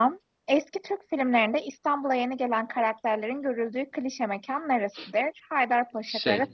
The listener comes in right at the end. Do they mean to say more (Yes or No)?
No